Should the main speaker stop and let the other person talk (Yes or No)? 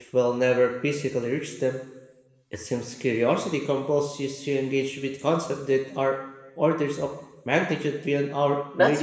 Yes